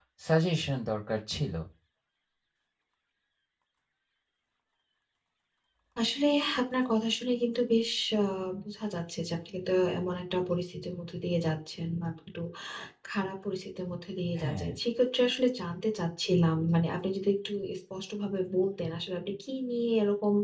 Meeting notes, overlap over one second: none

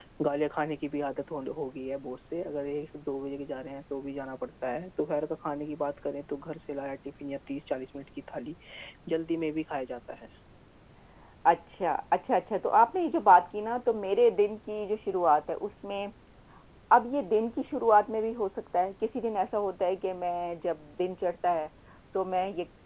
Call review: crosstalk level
none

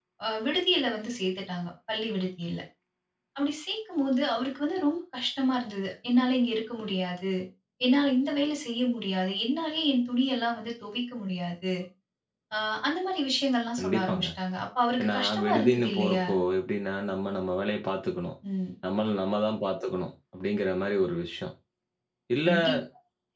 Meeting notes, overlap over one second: present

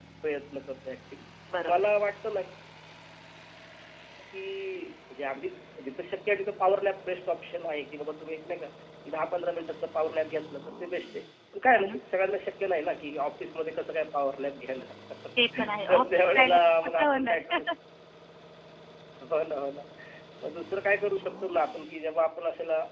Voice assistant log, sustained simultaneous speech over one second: present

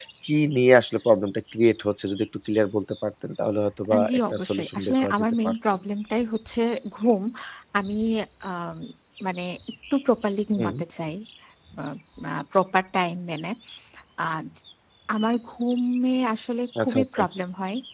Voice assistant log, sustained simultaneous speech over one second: present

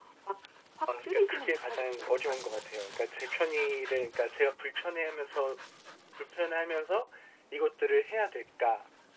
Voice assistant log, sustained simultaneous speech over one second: present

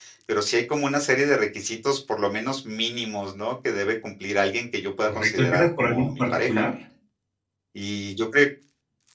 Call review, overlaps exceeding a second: present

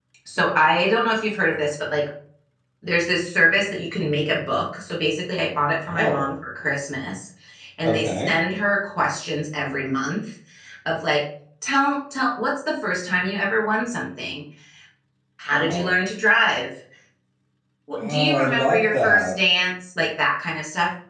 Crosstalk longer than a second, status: present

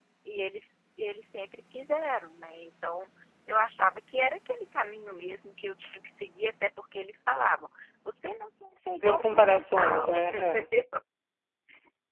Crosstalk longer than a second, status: present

